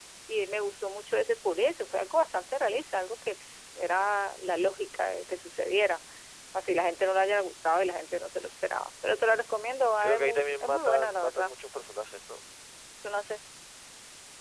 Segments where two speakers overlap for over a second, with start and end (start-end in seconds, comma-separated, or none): 10.0-11.5